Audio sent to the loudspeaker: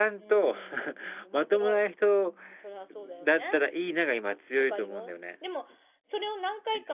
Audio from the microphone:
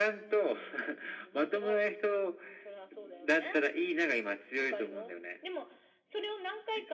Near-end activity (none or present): none